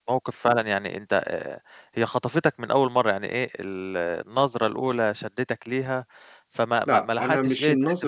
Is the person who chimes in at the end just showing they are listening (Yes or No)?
No